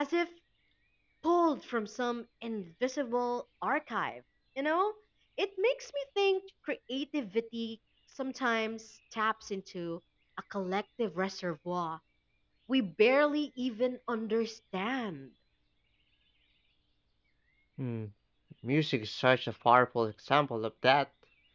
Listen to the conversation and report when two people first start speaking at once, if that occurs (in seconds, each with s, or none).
none